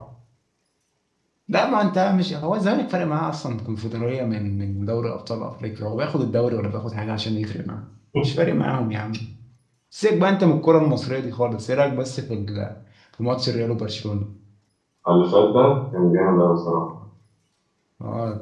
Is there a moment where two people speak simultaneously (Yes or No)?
No